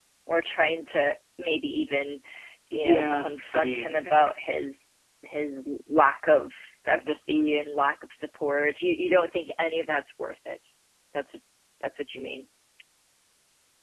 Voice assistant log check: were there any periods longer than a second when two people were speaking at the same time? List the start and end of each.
2.7-4.3

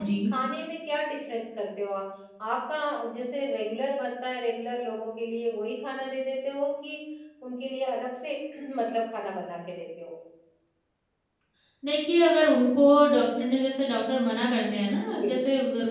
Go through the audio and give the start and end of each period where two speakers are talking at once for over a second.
none

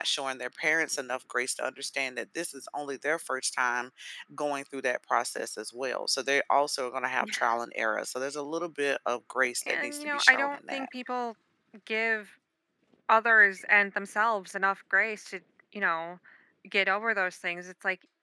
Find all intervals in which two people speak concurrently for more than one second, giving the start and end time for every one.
9.7-10.9

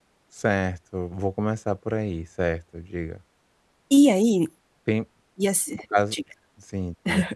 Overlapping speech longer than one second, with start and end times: none

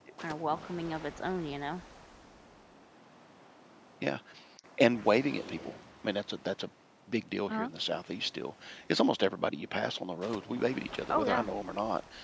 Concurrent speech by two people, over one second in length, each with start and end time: none

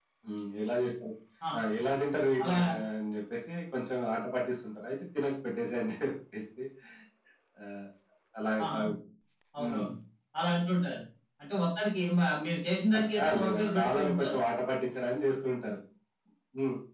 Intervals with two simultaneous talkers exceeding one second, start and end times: 13.1-14.4

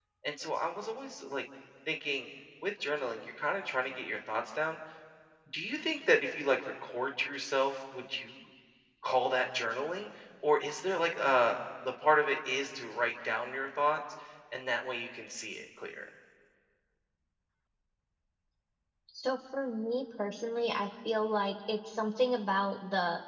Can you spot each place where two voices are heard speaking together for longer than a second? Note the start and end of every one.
none

